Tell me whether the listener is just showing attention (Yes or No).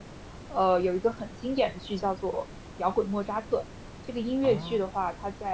Yes